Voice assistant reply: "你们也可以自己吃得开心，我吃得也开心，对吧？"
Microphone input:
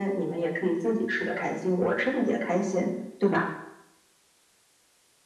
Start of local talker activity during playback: none

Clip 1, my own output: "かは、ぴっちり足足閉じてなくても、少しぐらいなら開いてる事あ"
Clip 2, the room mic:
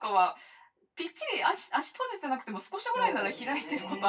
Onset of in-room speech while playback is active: 3 s

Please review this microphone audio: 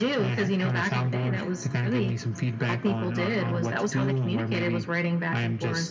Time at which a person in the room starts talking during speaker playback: none

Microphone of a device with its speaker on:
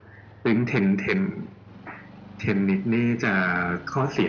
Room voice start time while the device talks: none

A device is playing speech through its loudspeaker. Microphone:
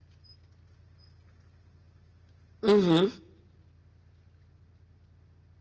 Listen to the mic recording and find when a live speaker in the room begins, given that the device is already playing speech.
3 s

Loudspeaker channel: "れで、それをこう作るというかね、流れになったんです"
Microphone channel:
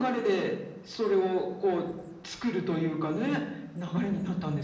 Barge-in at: none

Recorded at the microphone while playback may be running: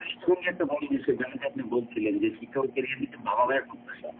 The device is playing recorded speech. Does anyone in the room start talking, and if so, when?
none

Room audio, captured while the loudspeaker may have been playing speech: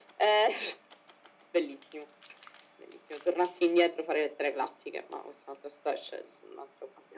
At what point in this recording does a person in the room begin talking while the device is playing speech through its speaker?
none

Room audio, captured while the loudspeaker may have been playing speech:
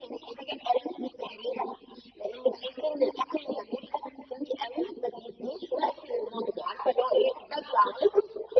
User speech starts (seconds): none

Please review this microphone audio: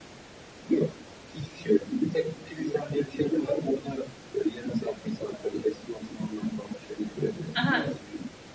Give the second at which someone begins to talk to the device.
8 s

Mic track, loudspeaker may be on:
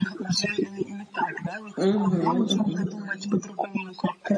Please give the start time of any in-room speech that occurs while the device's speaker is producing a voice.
2 s

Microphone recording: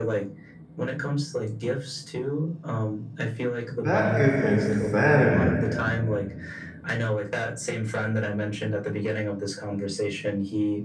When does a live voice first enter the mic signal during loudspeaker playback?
4 s

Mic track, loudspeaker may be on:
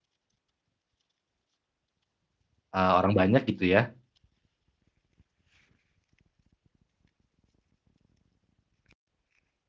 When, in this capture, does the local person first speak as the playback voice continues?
3 s

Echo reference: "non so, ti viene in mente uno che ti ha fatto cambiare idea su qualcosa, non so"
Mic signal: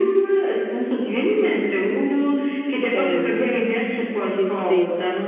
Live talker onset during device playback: 3 s

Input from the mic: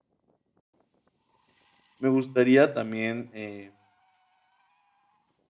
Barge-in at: 2 s

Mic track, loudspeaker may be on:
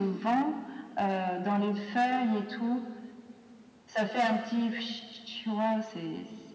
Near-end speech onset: none

